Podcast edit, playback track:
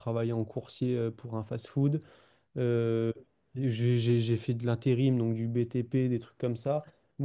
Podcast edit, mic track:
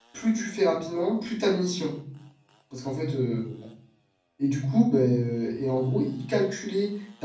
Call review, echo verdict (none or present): none